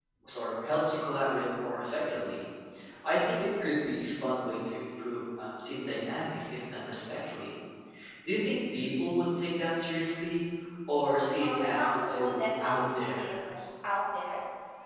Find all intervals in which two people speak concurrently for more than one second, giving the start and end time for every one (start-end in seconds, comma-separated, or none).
11.4-13.3